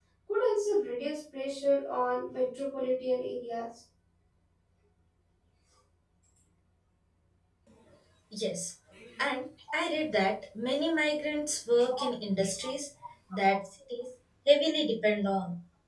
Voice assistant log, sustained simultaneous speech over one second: none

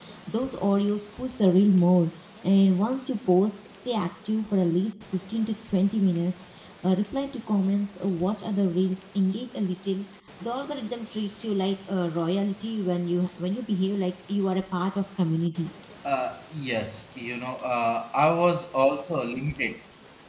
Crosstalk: none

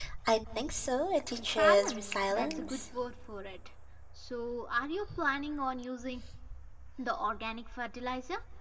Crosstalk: present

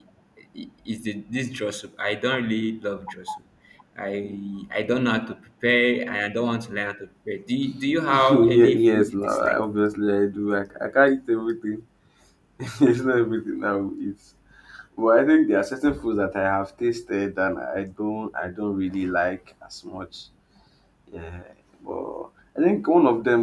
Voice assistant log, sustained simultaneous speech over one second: present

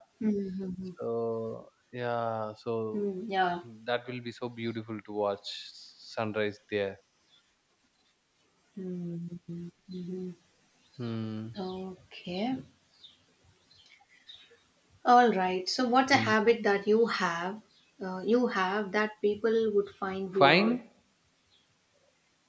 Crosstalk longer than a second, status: none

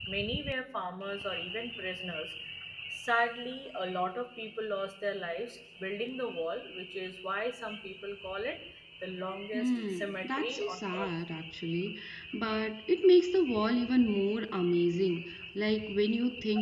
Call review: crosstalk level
present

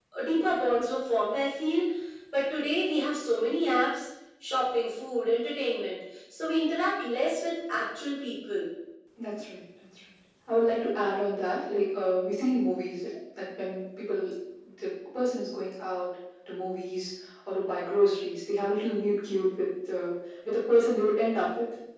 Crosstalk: none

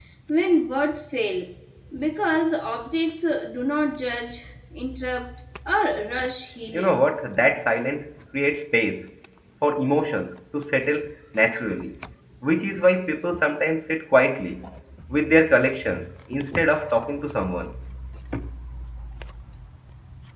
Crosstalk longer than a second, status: none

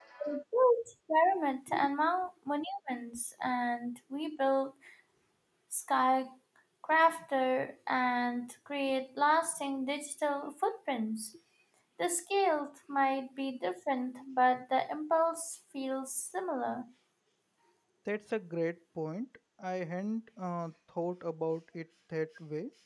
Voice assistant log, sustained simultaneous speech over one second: none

